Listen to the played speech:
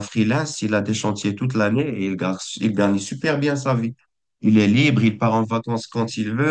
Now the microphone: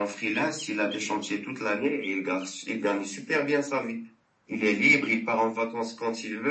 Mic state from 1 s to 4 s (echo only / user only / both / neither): echo only